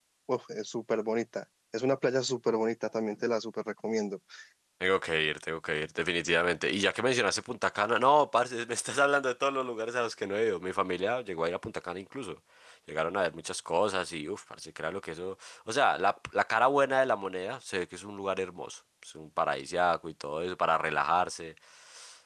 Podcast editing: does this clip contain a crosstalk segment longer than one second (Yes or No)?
No